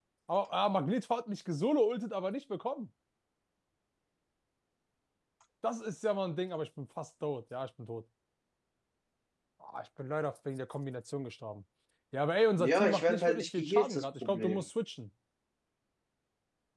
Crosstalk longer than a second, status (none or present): present